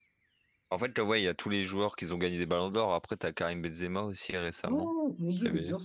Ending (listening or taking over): taking over